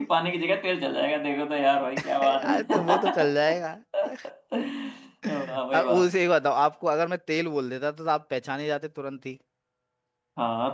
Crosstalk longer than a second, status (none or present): present